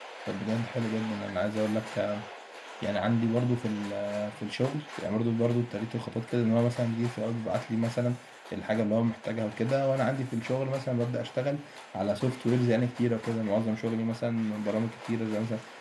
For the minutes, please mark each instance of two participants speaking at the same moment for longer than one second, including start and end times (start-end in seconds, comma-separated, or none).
none